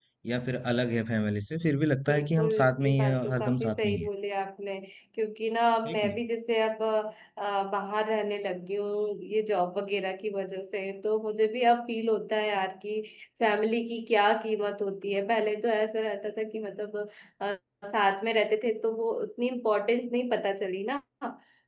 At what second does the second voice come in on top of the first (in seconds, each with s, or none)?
2.1 s